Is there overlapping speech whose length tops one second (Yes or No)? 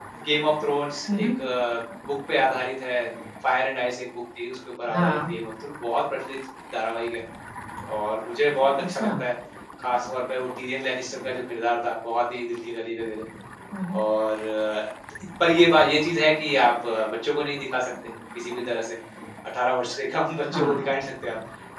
No